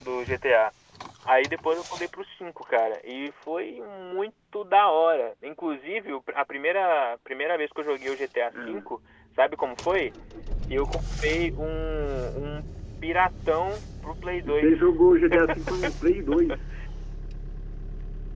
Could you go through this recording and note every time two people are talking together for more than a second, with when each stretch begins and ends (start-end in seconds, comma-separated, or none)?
none